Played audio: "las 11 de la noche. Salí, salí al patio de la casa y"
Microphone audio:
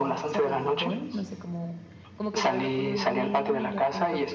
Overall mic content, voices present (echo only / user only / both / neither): both